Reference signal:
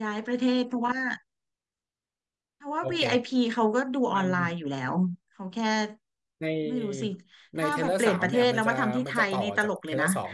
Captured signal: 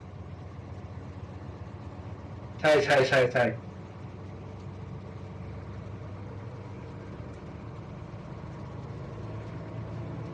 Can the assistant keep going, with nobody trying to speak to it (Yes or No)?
No